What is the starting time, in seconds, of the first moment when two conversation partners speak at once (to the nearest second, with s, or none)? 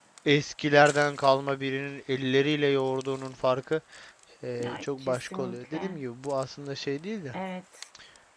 5 s